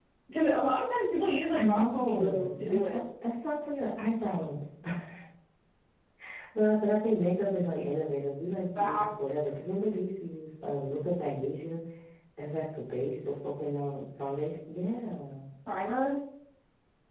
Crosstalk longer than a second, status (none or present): present